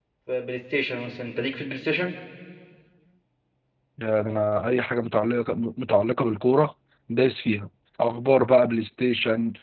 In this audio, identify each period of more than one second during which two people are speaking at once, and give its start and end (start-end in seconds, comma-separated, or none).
none